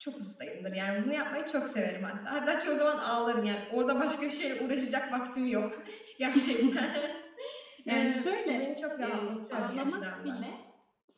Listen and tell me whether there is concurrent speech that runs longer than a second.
Yes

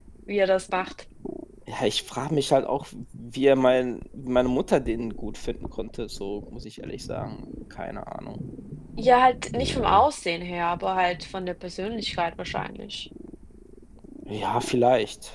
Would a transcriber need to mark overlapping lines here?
No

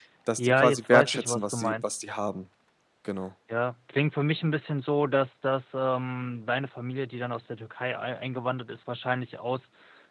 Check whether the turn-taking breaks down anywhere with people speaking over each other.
Yes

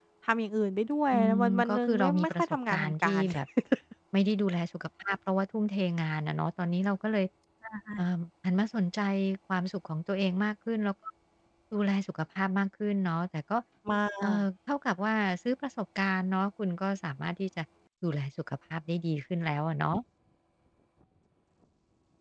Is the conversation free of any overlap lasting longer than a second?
No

